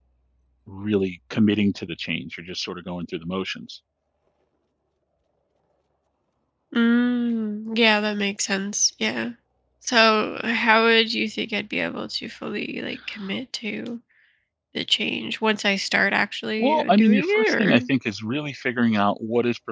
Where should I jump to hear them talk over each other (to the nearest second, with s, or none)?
17 s